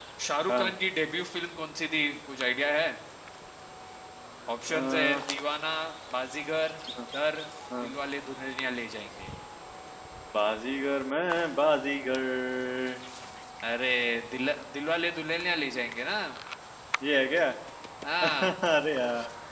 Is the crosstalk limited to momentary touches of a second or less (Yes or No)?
Yes